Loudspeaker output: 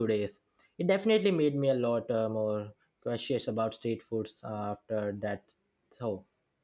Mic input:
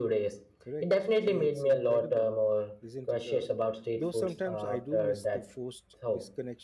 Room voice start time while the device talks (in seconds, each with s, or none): 0.6 s